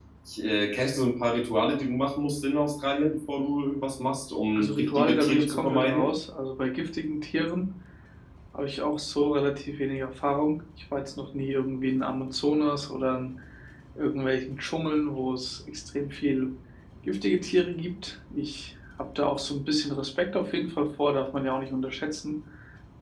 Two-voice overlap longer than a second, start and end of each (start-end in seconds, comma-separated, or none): 4.5-6.1